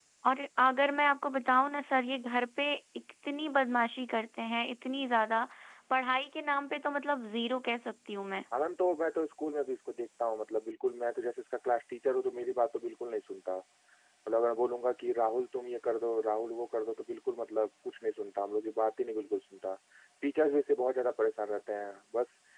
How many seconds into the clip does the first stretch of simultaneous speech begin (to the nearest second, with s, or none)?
none